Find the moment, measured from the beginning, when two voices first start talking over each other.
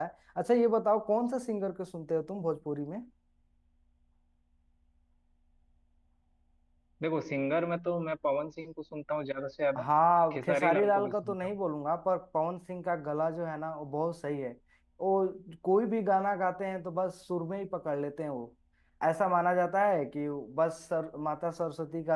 10.3 s

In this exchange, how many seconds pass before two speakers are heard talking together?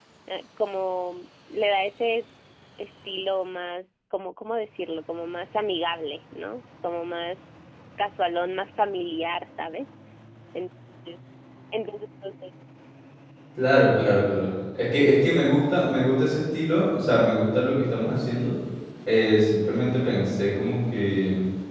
none

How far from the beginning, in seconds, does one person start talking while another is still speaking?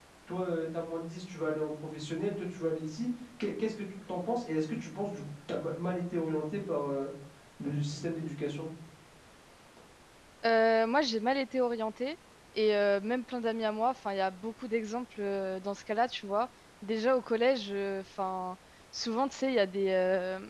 none

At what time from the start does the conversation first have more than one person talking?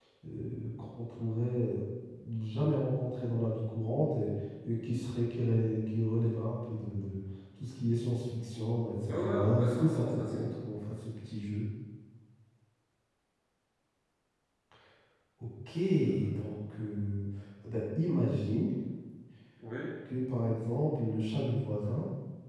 9.1 s

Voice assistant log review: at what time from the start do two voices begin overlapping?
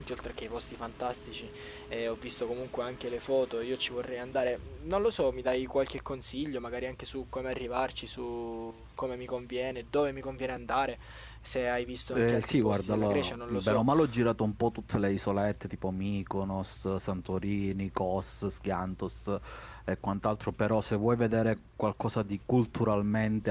12.1 s

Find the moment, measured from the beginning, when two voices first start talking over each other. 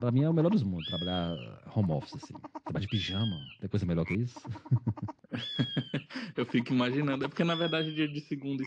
none

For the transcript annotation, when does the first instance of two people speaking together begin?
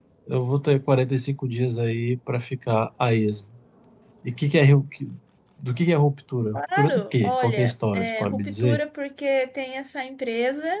6.5 s

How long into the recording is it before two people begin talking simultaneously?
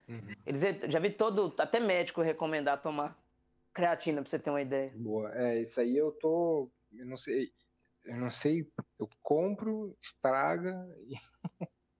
none

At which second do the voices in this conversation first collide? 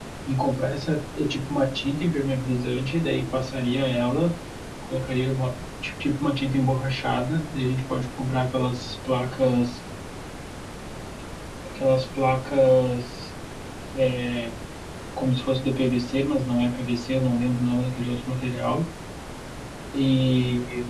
none

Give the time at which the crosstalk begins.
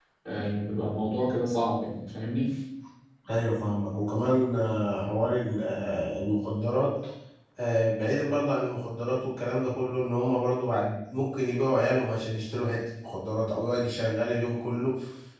none

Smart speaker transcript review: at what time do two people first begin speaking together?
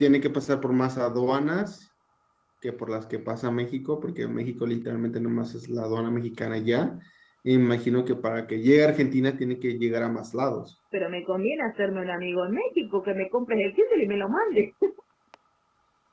none

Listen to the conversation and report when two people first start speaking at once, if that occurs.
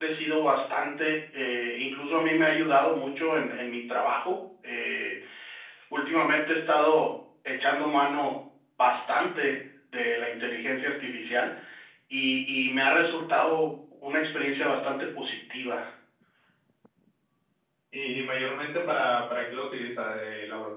none

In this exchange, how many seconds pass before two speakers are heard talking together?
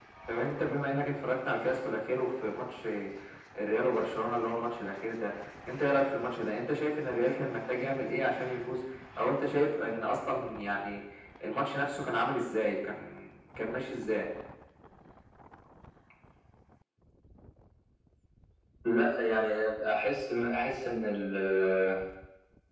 none

